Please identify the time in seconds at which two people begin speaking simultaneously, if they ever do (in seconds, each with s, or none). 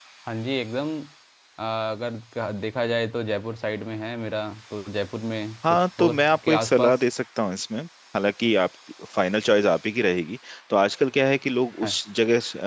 5.6 s